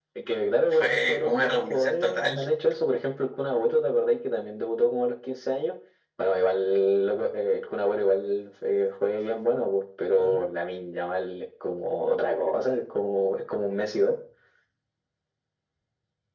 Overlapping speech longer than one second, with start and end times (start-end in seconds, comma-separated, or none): 0.7-2.4